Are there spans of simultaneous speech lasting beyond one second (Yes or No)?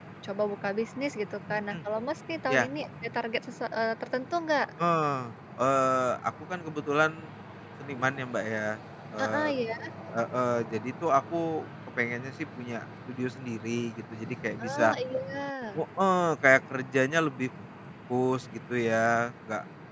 No